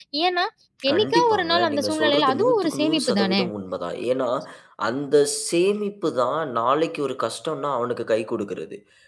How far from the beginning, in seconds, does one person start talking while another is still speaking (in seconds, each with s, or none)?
0.9 s